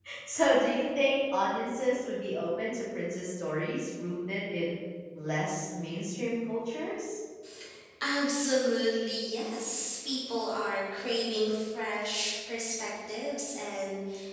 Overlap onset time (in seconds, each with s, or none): none